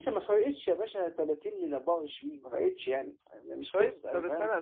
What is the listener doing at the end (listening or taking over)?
taking over